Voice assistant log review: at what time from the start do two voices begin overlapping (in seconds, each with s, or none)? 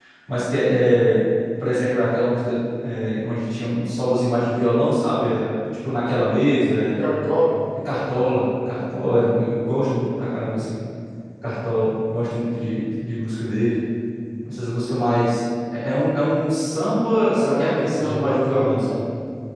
17.3 s